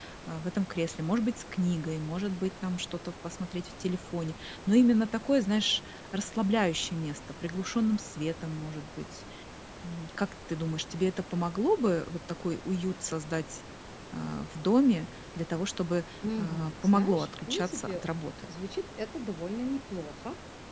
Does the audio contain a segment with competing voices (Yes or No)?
Yes